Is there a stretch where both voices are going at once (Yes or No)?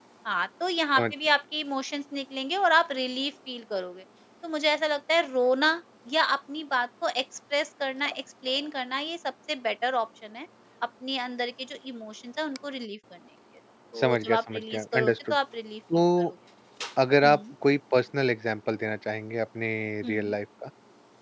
Yes